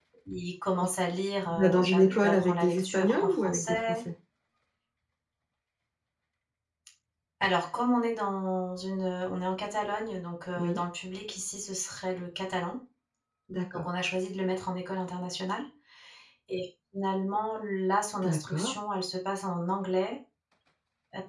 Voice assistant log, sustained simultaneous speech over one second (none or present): present